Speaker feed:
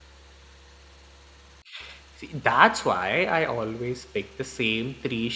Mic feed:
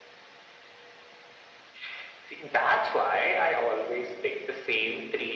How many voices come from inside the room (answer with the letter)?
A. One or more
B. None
B